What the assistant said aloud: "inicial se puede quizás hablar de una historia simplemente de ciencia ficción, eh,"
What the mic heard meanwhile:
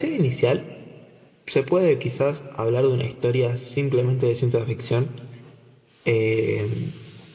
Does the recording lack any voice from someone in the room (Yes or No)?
Yes